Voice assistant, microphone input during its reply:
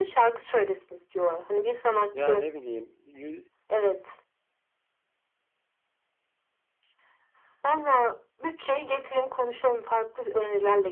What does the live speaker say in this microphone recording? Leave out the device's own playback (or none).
Ya ne bileyim. Yü...